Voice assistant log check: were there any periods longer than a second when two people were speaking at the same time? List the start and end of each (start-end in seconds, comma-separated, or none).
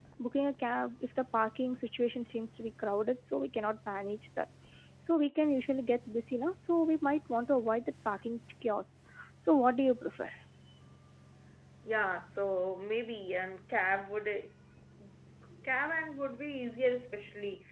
none